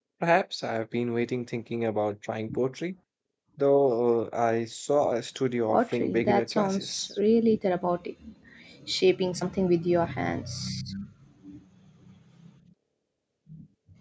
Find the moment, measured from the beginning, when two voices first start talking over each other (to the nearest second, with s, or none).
6 s